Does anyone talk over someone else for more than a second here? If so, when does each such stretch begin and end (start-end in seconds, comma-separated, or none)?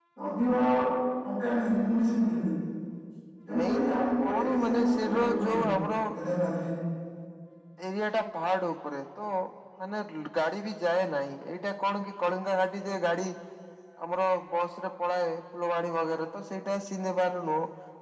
4.3-5.7